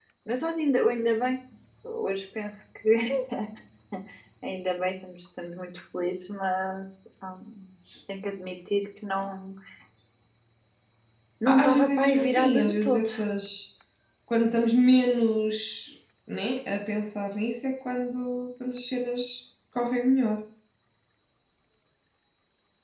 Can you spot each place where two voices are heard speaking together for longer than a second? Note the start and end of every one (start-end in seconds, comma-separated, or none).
11.5-13.1